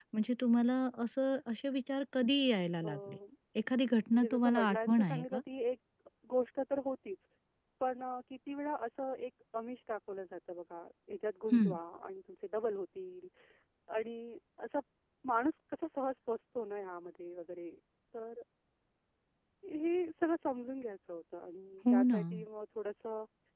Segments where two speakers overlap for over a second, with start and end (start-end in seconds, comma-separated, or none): 4.1-5.4